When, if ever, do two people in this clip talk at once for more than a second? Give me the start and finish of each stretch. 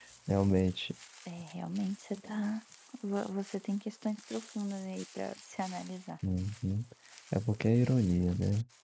none

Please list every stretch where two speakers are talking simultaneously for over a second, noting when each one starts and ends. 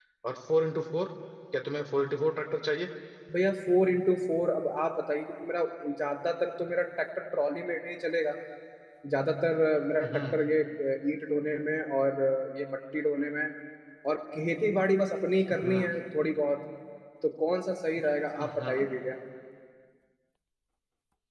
none

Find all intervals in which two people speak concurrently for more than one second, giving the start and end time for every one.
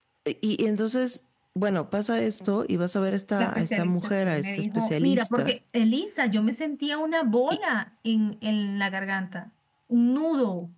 3.4-5.5

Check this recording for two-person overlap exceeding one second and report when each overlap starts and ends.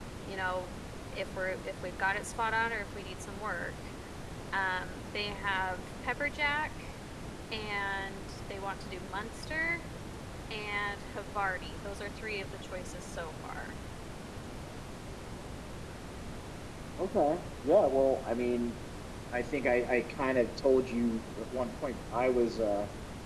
none

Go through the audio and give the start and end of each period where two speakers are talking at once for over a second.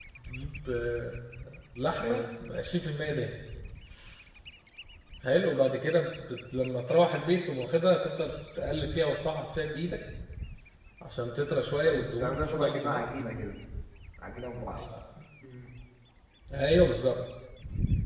11.8-13.1

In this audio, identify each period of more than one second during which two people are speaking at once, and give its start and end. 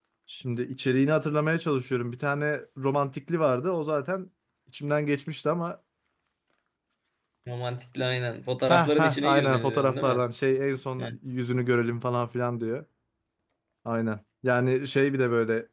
8.7-10.2

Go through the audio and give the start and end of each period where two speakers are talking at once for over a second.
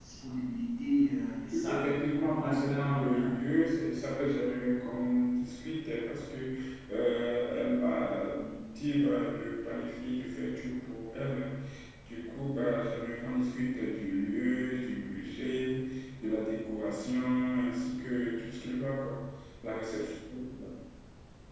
1.6-3.3

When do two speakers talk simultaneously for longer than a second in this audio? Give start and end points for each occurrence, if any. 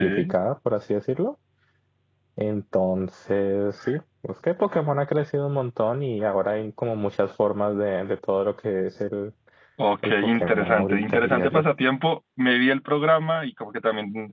10.0-11.6

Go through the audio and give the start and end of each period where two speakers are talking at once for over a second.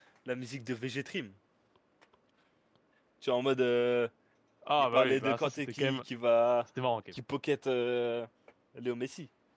4.8-6.0

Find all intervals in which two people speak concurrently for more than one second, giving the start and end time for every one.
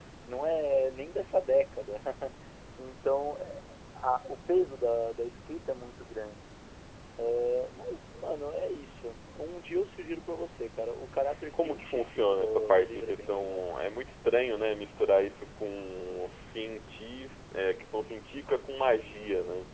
11.5-13.6

